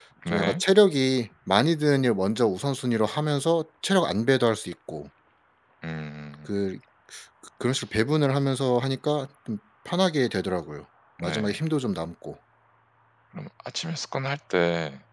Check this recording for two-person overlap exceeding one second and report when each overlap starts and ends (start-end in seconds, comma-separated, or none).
none